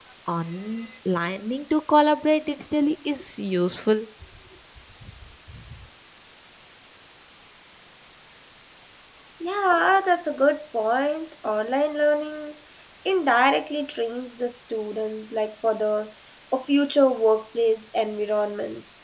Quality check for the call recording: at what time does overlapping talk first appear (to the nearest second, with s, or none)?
none